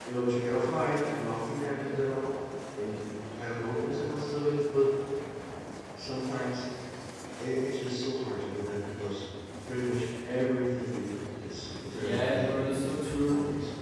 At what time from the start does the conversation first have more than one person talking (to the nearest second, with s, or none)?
12 s